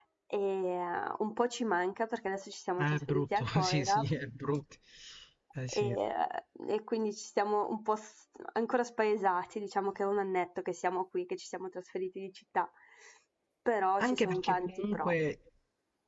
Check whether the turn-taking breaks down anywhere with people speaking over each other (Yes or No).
Yes